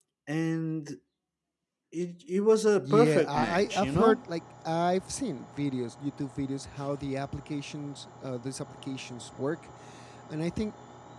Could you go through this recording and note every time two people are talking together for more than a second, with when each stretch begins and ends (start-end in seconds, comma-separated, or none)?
2.8-4.2